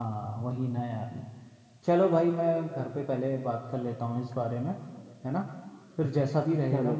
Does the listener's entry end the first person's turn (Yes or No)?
No